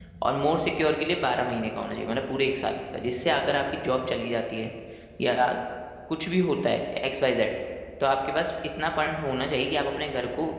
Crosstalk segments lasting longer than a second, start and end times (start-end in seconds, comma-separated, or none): none